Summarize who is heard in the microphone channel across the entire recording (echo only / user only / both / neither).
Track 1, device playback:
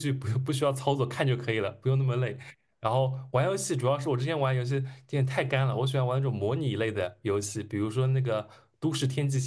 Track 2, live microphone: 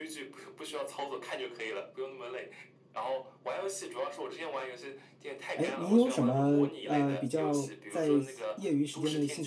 both